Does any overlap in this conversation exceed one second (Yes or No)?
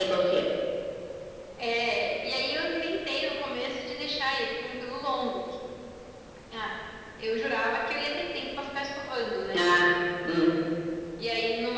No